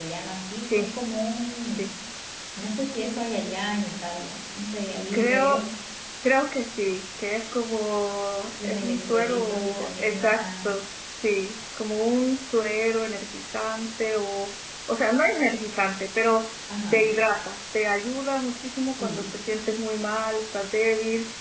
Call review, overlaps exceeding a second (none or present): present